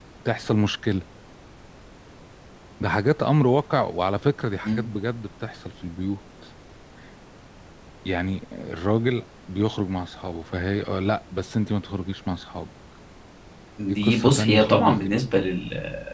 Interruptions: present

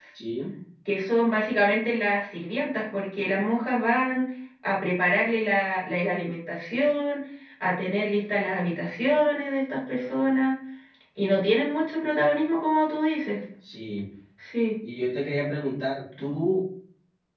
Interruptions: none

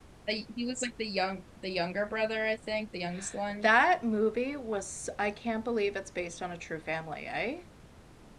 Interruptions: none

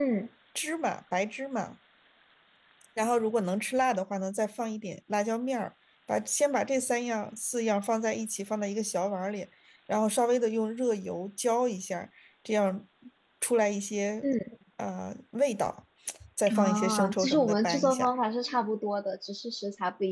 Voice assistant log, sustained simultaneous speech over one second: present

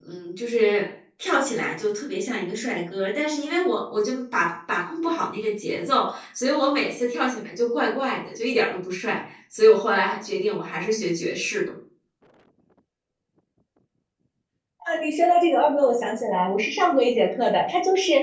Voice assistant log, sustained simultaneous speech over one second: none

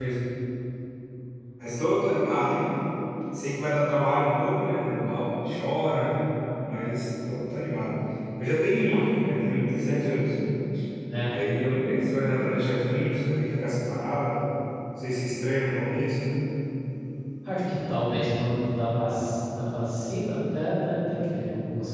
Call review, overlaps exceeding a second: none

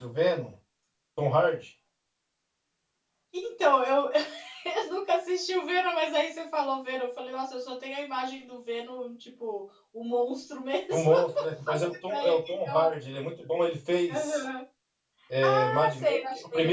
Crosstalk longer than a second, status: present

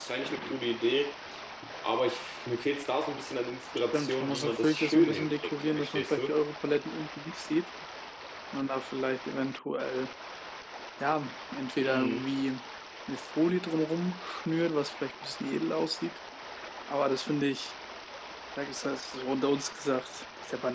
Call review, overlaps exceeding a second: present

